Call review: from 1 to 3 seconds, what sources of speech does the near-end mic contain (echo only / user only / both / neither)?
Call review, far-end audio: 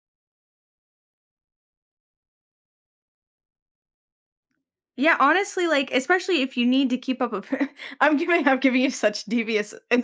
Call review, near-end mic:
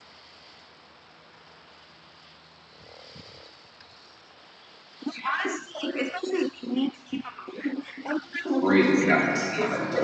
neither